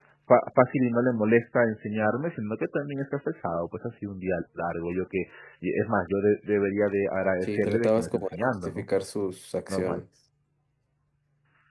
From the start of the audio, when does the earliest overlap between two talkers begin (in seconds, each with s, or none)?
7.4 s